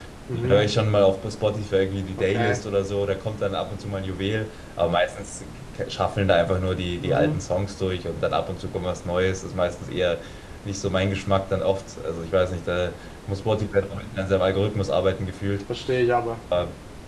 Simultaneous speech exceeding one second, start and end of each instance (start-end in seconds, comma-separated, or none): none